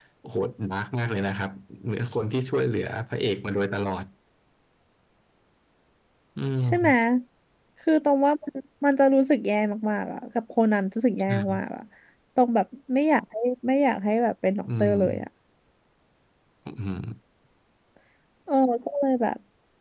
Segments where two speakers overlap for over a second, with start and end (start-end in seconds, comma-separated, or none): none